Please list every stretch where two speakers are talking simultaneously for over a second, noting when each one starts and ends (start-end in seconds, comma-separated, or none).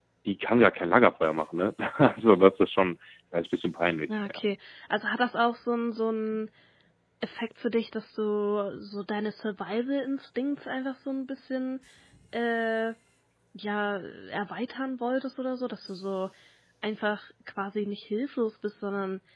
none